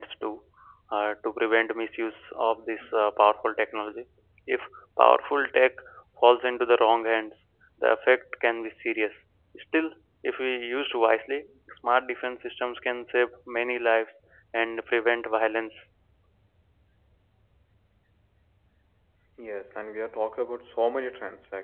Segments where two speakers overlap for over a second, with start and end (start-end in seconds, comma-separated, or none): none